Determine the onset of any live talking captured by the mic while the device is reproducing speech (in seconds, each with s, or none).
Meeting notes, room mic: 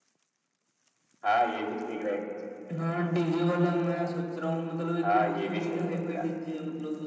none